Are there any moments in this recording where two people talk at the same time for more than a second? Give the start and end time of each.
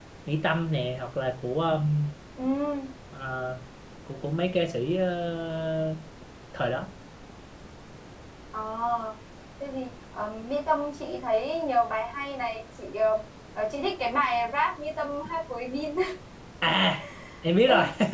none

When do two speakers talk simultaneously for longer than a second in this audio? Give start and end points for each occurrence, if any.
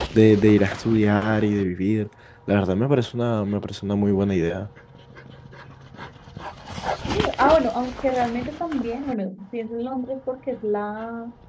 none

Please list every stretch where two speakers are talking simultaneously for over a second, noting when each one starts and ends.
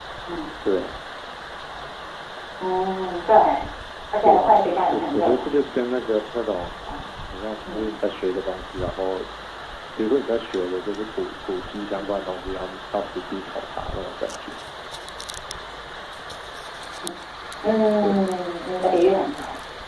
4.2-5.6

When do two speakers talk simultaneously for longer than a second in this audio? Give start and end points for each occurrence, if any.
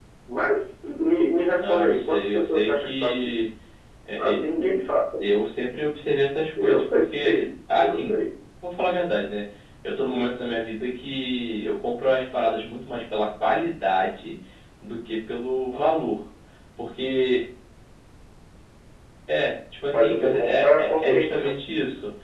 1.6-3.4, 19.9-21.5

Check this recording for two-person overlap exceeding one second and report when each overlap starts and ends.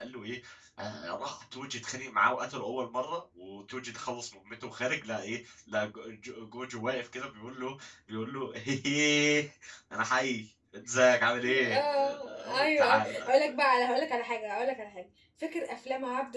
11.6-13.3

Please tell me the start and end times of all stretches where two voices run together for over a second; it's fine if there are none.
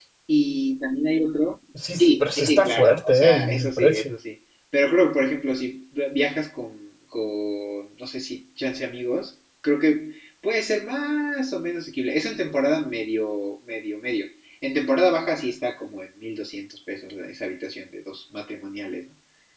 2.0-4.1

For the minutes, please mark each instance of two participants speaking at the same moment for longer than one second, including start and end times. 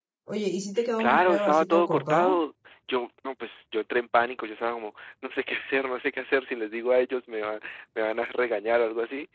1.0-2.4

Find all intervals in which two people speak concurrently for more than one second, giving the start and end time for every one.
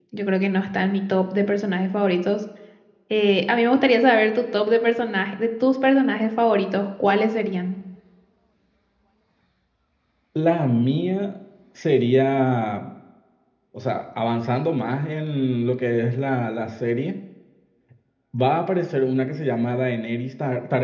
none

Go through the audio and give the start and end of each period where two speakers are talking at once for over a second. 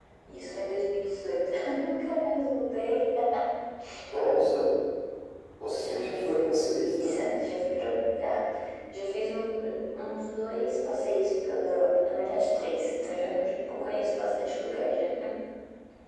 5.7-7.2

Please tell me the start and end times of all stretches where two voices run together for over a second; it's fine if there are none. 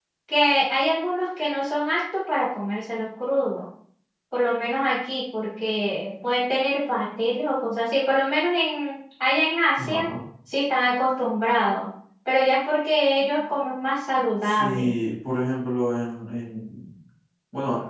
none

